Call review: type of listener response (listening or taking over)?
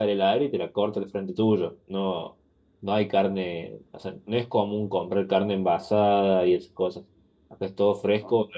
taking over